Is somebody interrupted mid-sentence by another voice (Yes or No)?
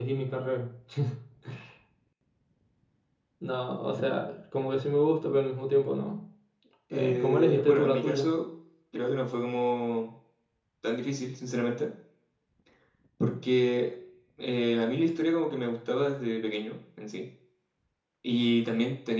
Yes